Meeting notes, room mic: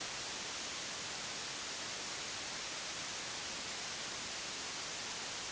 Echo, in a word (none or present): none